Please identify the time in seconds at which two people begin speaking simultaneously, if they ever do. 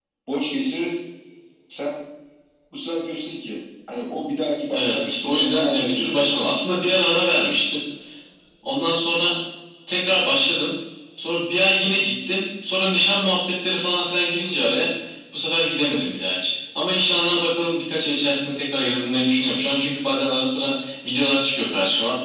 4.7 s

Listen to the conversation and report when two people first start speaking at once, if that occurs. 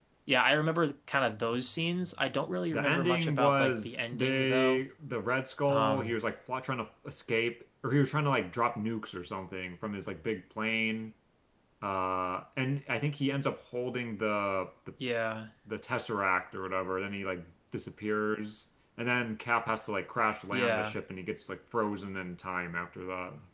2.7 s

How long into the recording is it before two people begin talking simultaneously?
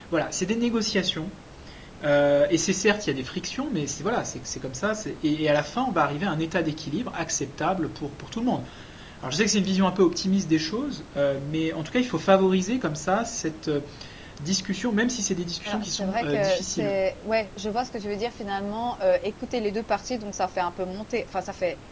15.6 s

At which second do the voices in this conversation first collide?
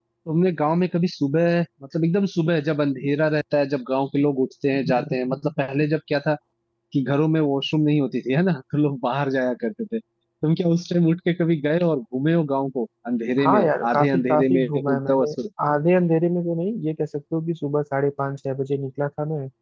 13.4 s

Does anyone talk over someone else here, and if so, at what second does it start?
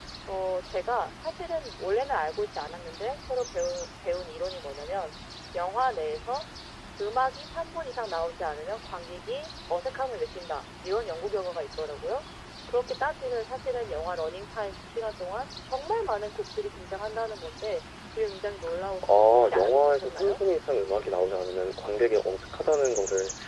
19.0 s

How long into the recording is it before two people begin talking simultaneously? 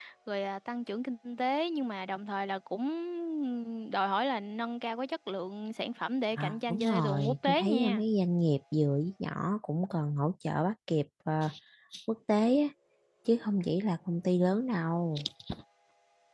6.4 s

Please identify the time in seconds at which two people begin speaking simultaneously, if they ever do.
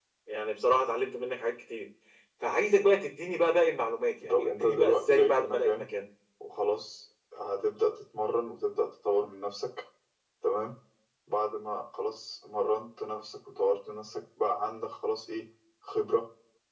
4.2 s

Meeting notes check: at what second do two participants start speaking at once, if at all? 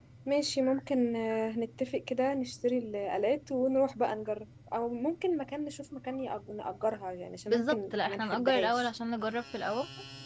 7.5 s

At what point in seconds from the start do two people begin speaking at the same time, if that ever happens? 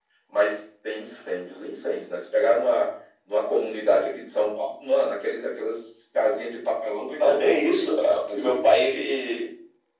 7.2 s

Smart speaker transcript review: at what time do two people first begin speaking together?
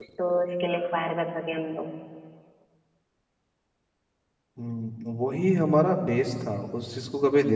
none

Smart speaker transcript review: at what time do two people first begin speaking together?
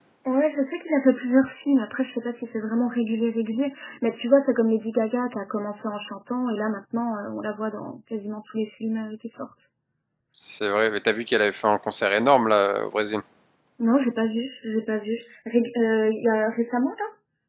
none

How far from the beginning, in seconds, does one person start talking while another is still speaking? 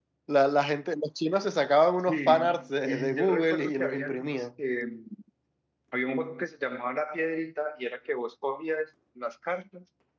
2.1 s

